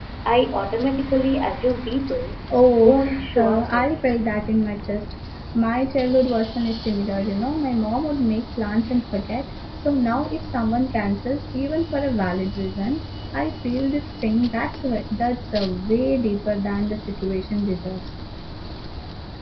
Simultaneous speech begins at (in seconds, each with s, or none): 2.8 s